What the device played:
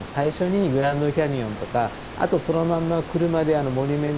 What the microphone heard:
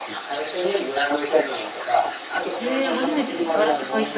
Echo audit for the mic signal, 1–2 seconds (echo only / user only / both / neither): echo only